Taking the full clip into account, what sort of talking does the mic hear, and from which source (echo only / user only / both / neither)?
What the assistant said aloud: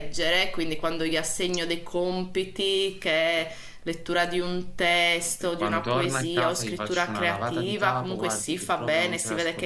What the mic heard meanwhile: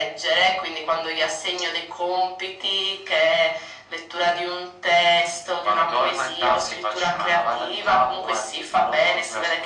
echo only